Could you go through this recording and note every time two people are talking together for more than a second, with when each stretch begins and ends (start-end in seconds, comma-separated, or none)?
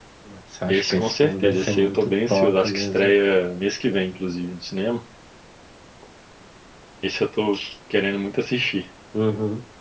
0.7-3.1